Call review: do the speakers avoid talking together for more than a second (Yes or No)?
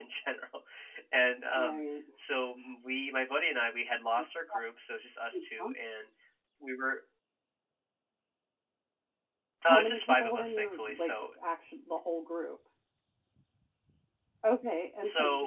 No